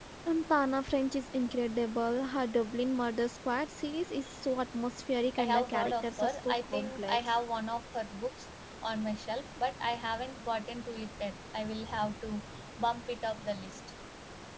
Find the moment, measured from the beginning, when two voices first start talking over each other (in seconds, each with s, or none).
5.4 s